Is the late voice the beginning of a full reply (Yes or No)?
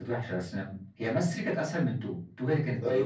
Yes